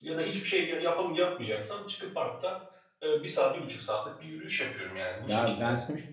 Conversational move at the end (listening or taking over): taking over